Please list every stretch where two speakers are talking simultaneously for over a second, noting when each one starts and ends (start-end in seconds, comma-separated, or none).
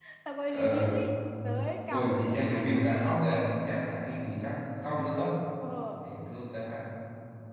1.9-3.2